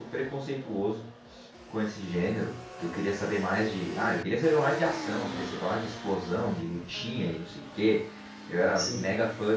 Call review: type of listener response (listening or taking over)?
listening